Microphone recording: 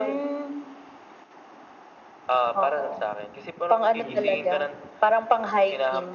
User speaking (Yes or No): Yes